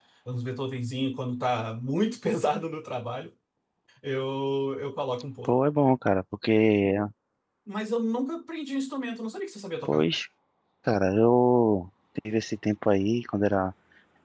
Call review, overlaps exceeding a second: none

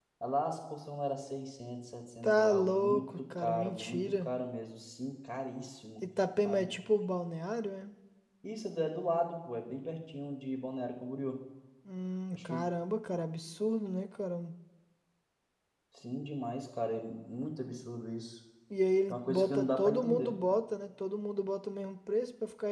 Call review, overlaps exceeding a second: present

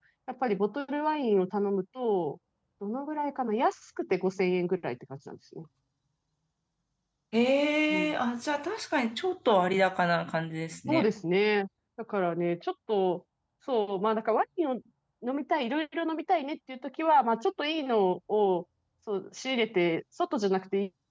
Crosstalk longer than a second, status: none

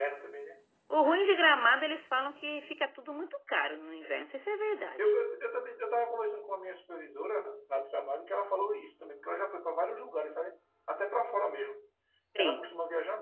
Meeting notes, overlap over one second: none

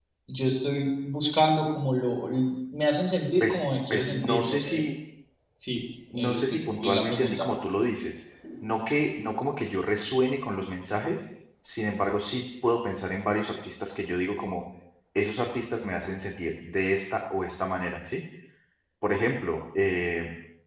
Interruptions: present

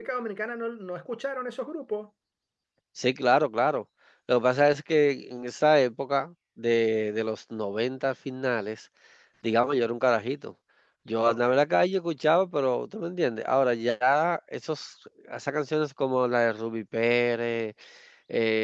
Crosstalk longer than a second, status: none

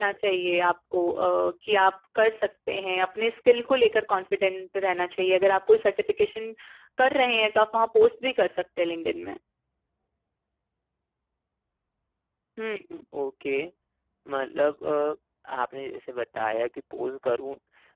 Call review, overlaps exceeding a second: none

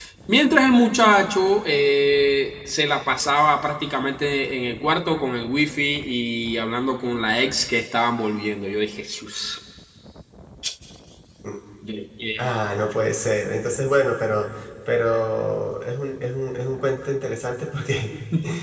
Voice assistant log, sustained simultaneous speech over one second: none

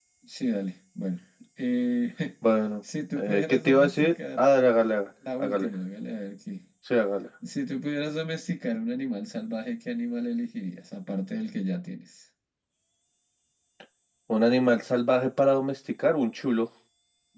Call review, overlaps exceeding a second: present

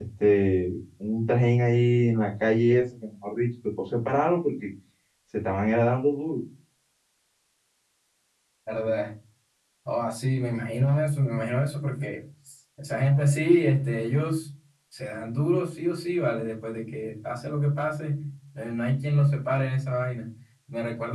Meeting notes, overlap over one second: none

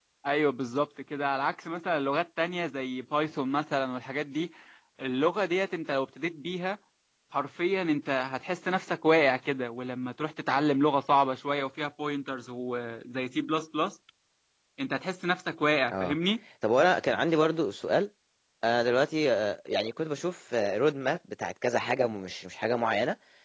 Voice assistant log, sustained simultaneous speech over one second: none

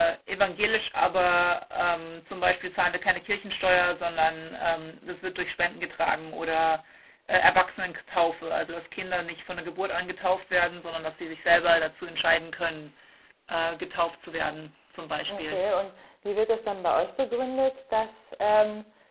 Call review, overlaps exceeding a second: none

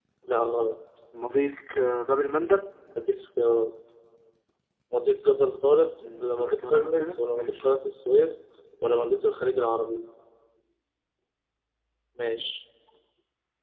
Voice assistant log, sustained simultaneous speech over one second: present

